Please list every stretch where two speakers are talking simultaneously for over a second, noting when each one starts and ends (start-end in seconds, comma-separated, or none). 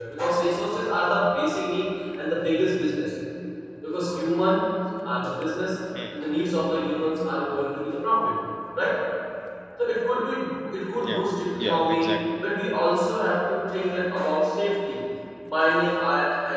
10.9-12.1